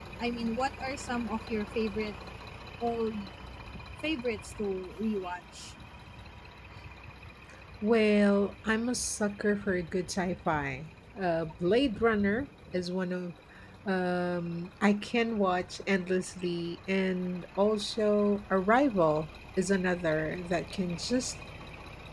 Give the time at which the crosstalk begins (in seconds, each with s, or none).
none